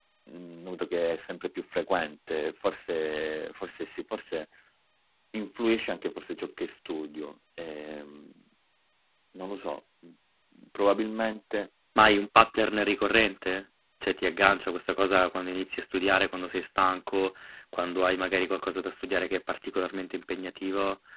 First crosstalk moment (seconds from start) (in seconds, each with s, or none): none